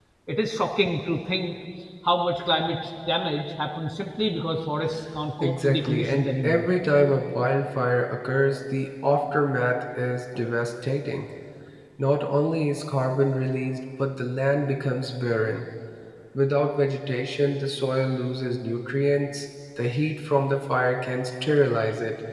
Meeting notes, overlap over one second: present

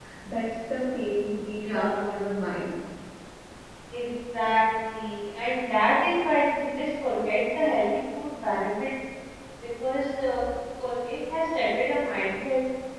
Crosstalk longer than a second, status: none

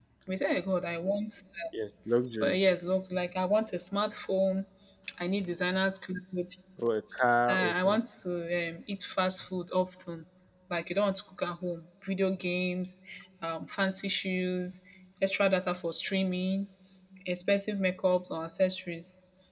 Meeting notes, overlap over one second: none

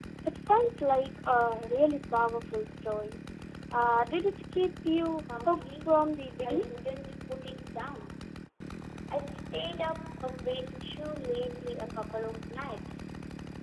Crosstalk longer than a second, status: present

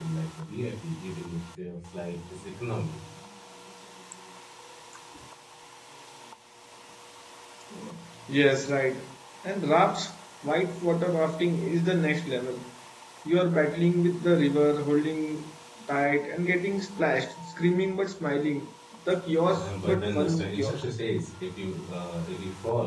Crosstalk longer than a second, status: present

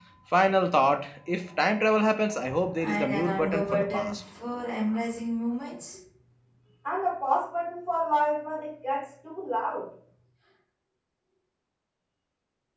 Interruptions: present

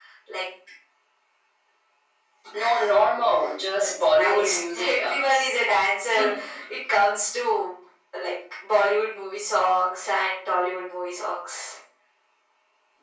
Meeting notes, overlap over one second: present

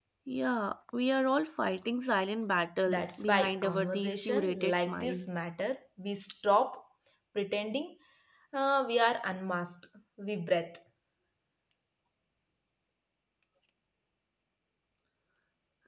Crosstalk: present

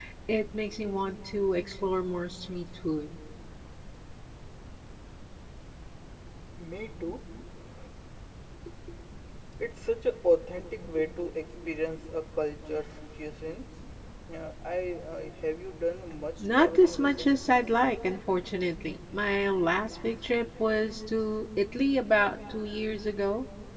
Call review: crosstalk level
present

